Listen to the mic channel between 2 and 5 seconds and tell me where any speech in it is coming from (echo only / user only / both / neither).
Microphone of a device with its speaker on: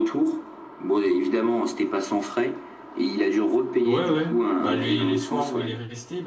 both